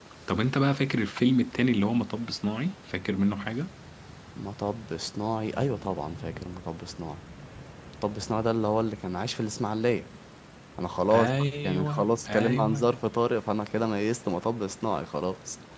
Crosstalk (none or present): present